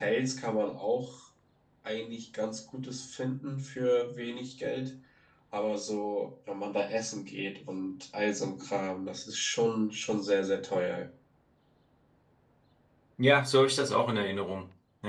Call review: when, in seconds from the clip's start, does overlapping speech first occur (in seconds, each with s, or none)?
none